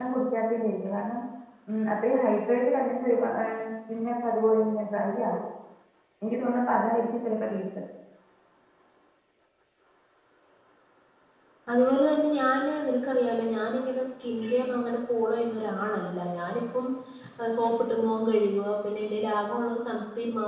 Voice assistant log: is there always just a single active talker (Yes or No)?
Yes